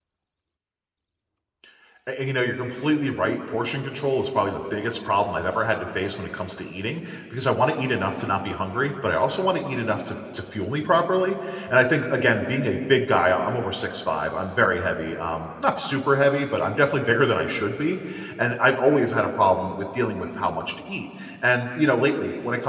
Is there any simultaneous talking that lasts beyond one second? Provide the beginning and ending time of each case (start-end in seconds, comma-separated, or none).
none